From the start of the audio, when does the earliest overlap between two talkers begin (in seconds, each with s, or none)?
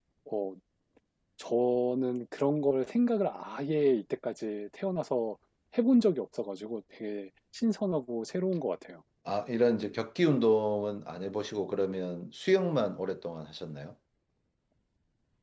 none